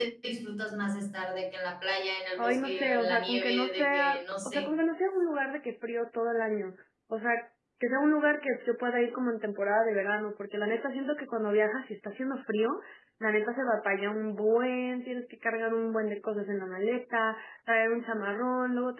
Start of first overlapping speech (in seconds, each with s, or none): 2.4 s